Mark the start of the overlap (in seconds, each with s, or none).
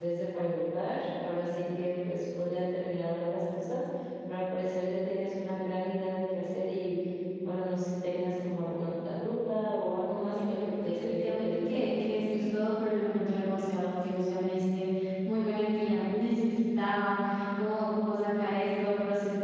10.3 s